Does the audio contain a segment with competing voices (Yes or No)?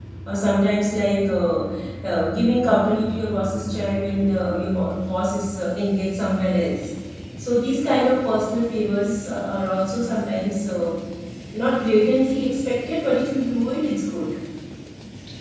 No